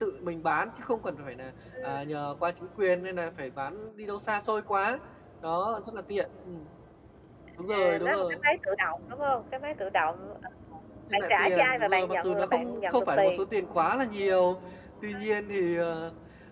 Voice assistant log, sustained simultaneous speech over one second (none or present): present